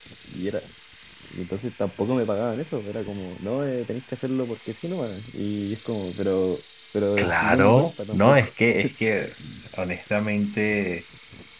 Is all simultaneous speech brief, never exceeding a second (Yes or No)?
No